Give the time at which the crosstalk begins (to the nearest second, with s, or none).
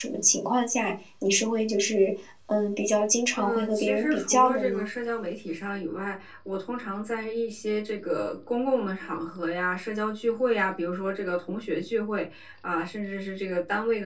3 s